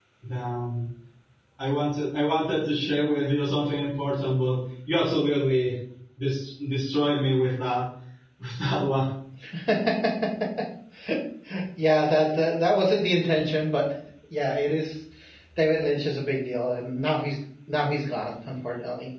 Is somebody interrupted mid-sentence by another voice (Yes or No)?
No